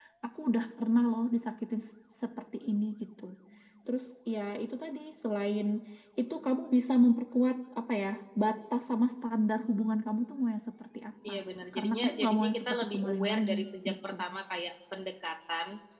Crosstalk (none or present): present